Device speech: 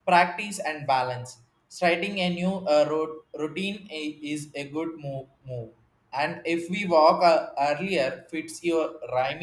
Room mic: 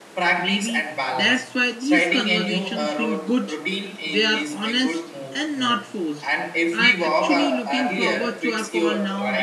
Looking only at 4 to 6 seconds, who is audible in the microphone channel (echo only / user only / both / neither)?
both